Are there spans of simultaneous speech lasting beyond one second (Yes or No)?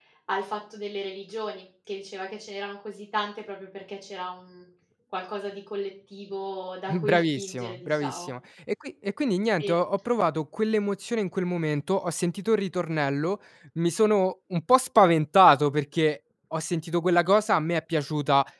Yes